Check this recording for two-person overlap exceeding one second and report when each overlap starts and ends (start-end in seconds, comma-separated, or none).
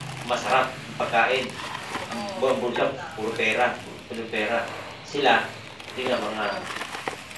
none